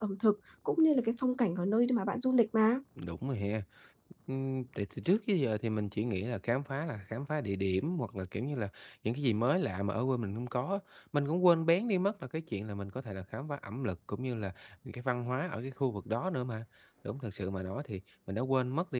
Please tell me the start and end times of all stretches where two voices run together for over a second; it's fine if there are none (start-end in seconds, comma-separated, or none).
none